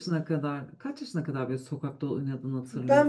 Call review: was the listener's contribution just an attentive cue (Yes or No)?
No